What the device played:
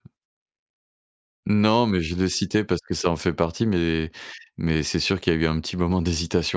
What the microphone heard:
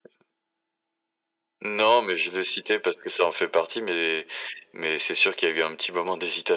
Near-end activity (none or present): none